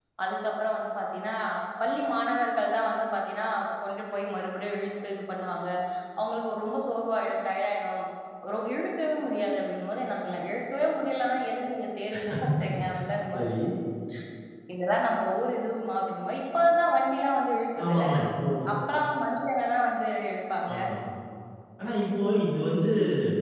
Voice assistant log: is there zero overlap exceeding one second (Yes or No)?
Yes